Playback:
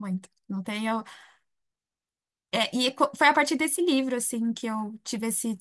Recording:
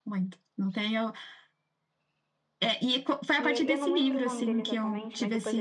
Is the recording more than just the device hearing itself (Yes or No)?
Yes